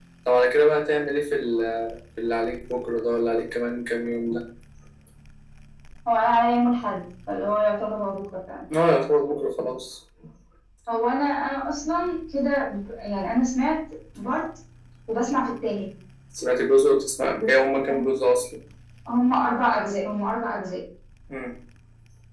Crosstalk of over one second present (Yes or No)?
No